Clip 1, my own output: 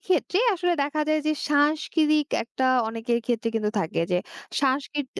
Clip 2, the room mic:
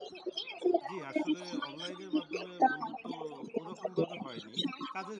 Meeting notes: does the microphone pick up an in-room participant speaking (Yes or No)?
Yes